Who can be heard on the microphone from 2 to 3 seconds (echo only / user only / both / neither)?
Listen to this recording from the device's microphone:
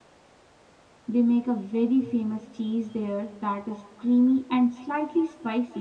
user only